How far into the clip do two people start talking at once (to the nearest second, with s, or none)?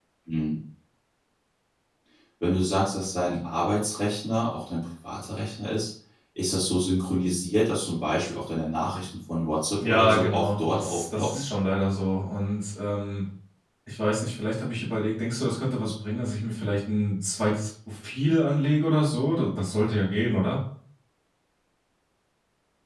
10 s